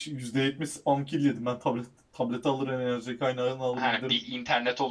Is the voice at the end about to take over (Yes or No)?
Yes